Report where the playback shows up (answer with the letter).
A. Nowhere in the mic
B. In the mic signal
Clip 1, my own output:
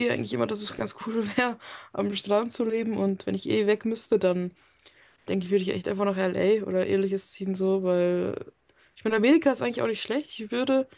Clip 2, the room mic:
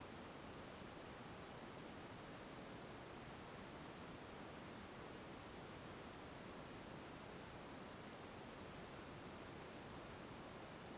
A